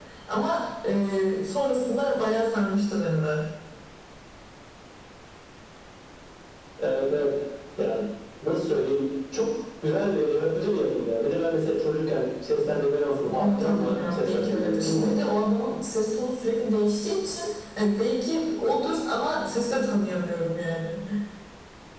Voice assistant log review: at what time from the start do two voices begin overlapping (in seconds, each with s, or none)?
13.4 s